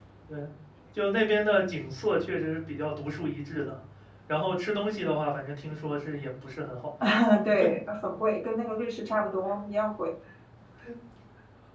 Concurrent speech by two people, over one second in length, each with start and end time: none

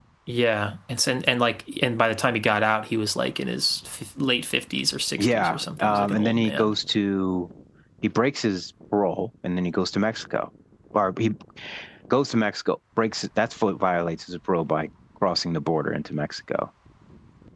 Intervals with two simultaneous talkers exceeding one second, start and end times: 5.2-6.7

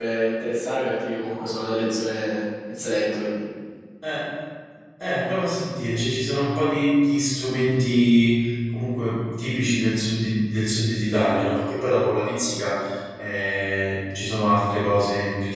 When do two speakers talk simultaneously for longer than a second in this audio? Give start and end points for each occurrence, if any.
none

